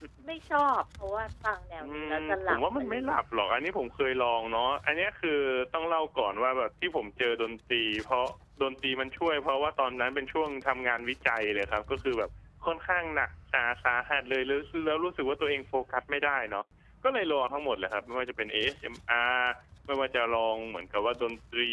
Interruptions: present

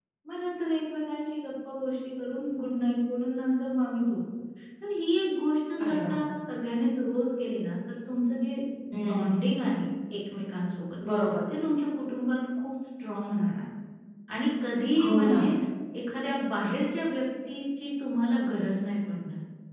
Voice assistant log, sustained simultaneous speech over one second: none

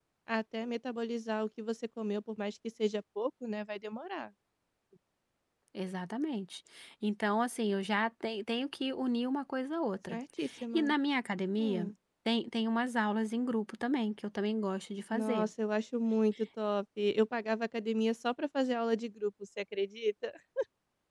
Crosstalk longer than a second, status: none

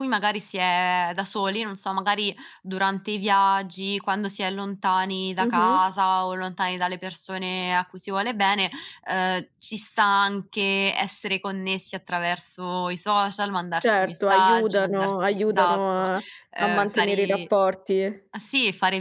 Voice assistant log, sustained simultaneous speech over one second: present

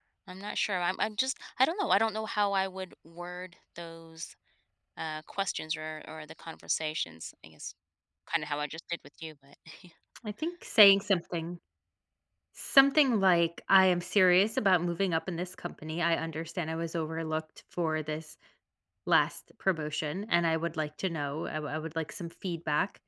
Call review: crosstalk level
none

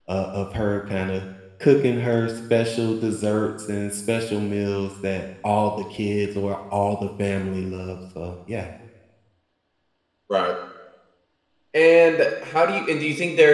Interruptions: none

